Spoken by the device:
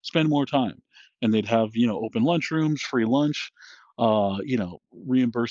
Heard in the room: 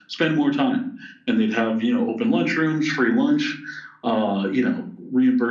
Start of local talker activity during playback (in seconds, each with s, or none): none